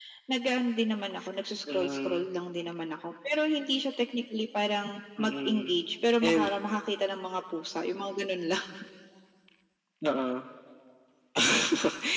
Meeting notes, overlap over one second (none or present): none